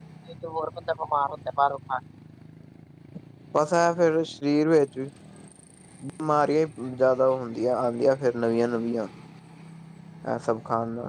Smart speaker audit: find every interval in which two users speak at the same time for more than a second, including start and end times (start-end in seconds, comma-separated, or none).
none